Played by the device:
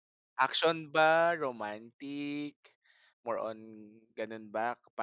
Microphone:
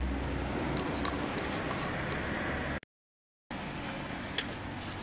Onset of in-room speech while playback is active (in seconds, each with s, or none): none